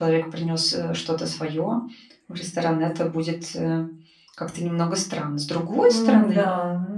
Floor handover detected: Yes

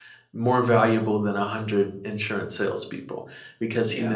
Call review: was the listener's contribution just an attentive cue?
Yes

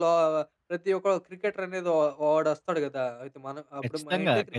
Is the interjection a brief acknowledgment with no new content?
No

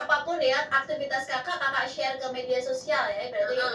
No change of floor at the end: No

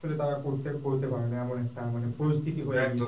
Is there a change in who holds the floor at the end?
Yes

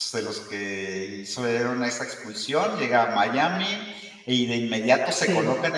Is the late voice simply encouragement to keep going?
Yes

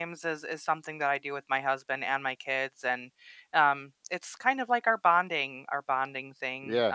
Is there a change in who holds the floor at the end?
No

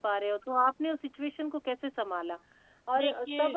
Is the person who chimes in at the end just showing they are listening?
Yes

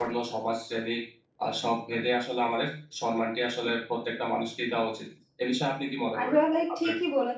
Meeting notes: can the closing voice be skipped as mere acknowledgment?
No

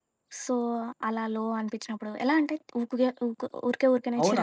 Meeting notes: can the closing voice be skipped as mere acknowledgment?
No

